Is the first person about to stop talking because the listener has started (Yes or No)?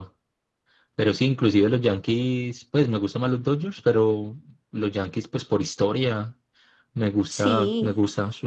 No